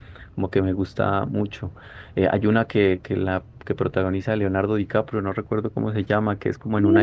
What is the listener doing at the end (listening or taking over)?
taking over